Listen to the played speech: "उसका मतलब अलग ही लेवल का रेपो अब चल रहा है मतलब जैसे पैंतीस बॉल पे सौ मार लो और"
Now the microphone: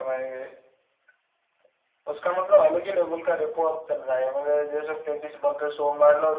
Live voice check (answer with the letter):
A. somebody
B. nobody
B